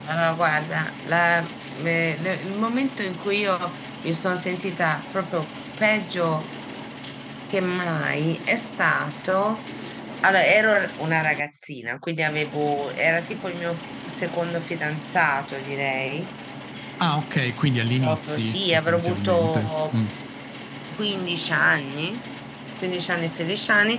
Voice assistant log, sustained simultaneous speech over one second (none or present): present